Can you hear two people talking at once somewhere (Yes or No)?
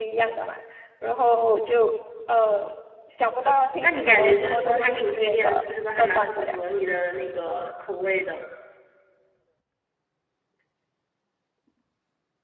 Yes